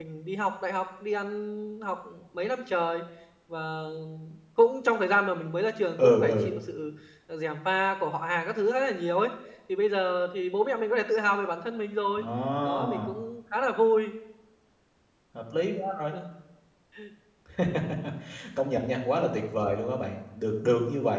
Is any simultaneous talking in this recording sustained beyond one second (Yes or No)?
No